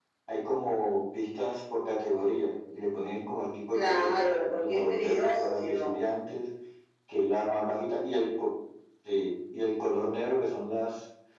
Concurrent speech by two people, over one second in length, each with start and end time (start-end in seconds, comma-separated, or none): 3.7-6.0